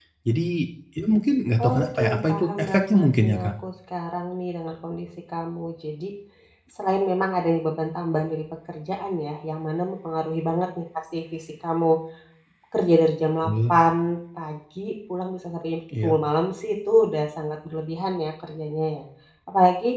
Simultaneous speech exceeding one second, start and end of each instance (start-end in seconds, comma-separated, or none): 1.6-3.5